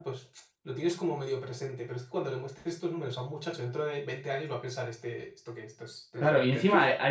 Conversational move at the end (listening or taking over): taking over